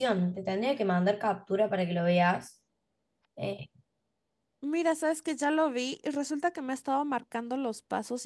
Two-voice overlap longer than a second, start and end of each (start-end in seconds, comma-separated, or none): none